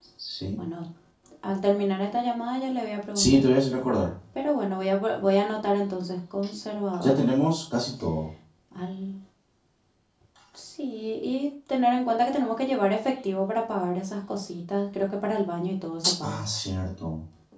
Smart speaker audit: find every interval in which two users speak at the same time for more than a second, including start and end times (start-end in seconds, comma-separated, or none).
none